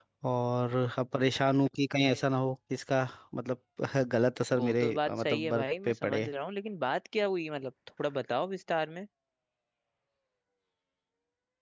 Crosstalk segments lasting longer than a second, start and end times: 4.6-6.3

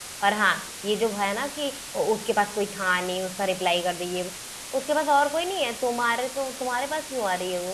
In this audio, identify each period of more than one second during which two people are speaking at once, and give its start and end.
none

